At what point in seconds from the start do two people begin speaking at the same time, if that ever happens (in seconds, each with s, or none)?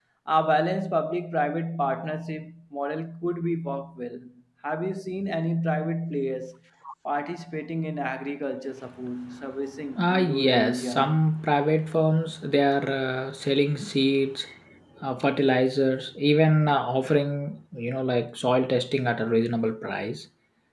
10.0 s